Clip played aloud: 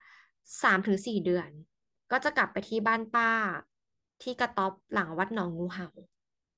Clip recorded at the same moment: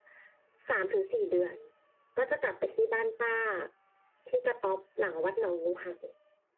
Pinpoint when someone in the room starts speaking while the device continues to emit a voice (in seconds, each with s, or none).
none